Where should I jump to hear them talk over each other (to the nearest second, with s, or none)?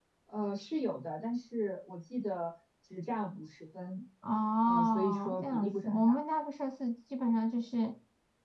5 s